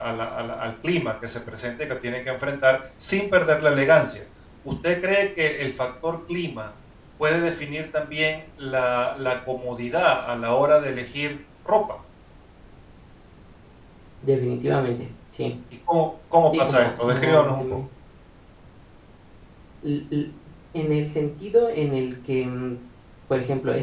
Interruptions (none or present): present